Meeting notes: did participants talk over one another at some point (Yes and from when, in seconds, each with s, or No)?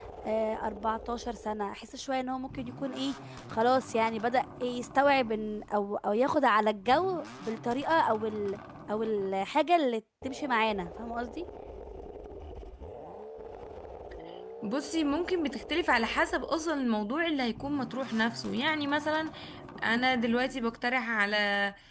No